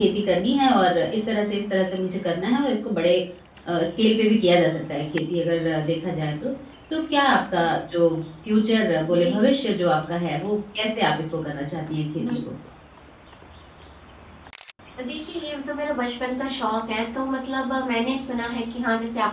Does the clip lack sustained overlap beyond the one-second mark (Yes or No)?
Yes